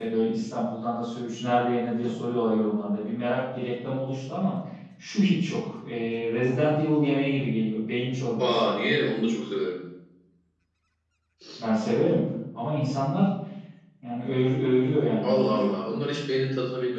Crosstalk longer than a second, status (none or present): none